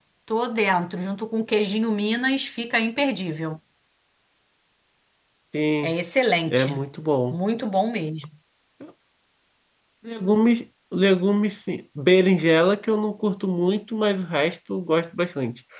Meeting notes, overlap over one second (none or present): none